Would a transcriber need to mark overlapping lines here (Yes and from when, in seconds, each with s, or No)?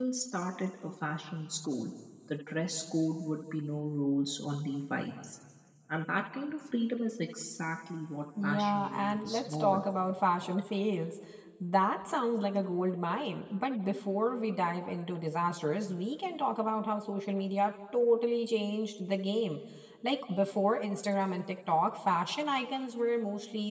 Yes, from 8.4 s